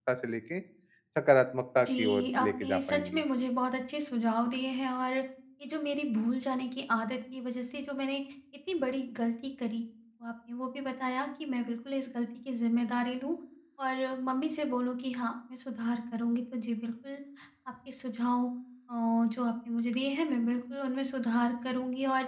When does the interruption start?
1.8 s

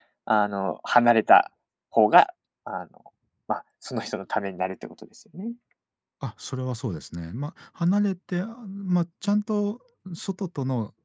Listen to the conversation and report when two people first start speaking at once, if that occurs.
none

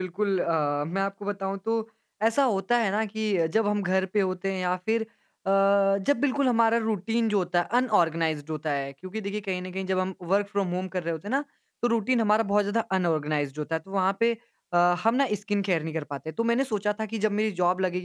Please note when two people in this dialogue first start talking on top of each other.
none

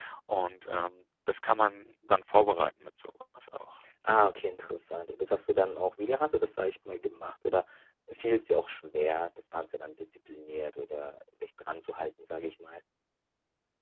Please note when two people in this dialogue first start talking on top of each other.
none

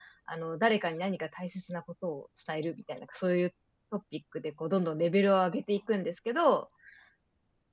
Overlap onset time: none

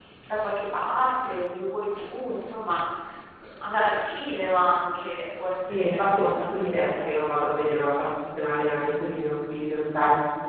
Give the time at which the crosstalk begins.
5.7 s

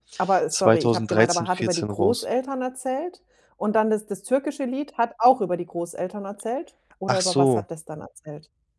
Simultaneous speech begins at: 0.5 s

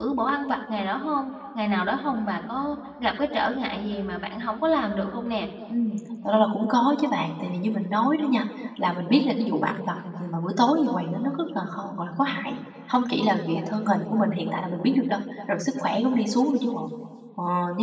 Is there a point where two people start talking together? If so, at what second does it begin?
none

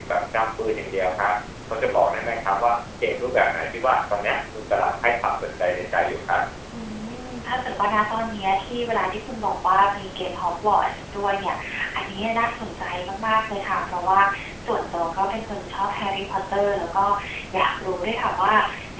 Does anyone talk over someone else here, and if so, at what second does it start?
none

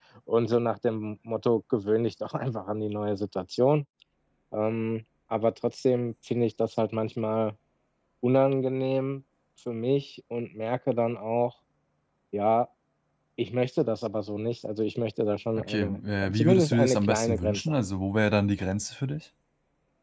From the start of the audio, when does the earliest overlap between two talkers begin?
15.6 s

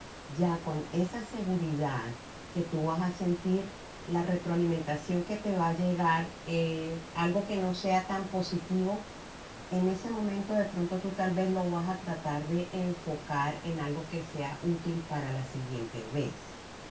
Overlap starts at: none

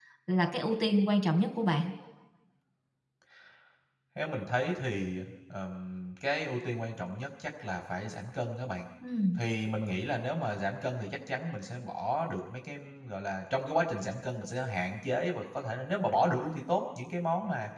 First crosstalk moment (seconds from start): none

